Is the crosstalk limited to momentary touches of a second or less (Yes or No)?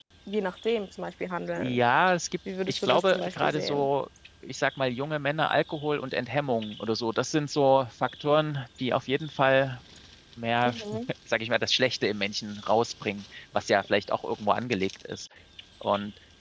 No